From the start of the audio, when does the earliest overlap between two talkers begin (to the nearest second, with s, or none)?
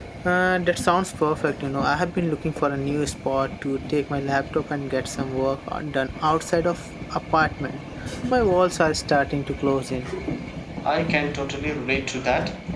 none